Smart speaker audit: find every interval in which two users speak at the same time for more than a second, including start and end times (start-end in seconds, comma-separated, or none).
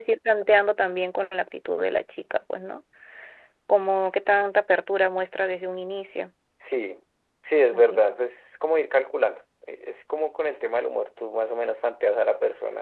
none